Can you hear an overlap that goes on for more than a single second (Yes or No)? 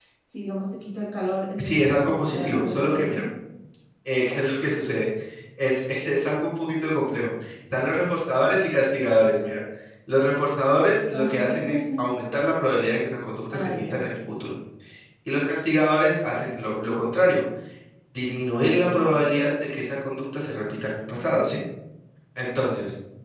Yes